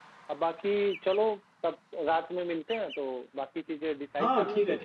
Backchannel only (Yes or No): No